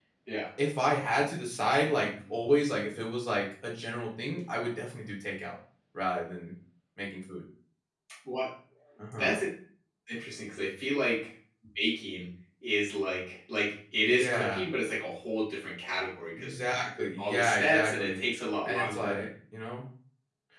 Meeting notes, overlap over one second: present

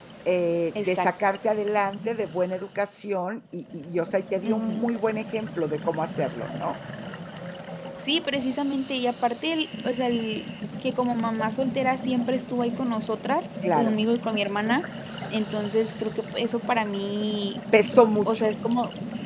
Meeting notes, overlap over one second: none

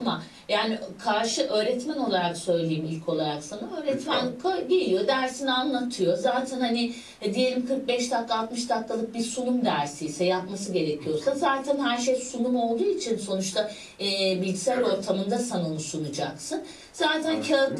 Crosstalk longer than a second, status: none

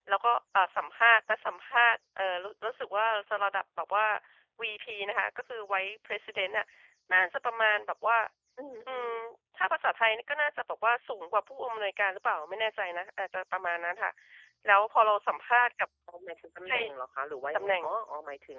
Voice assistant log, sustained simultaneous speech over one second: none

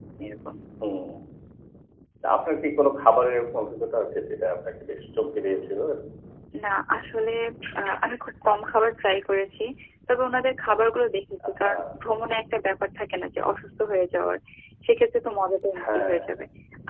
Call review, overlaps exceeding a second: none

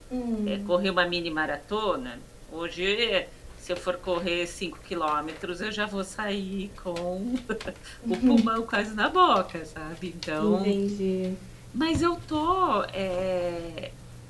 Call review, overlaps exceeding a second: none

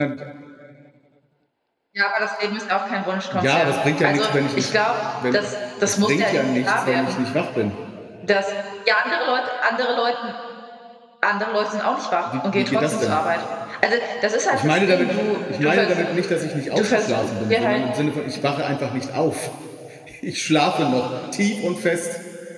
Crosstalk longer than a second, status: present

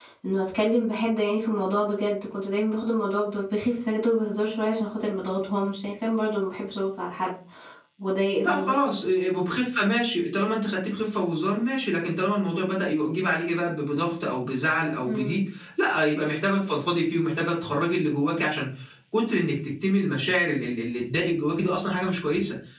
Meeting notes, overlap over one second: none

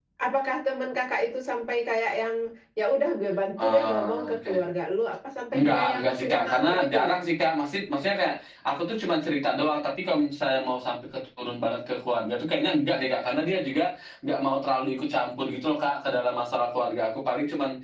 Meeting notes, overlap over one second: present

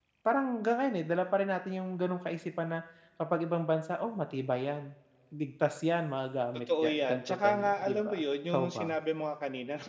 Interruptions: present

